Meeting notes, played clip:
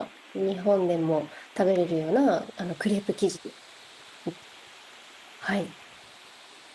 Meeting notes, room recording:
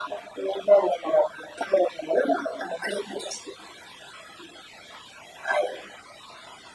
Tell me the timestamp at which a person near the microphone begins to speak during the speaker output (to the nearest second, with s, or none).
none